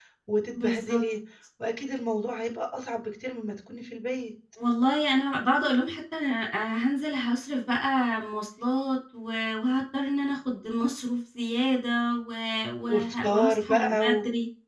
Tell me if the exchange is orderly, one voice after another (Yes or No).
No